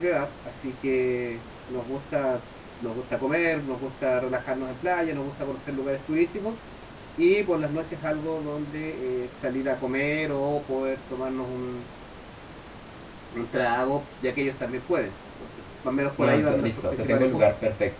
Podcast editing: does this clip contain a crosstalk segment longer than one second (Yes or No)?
Yes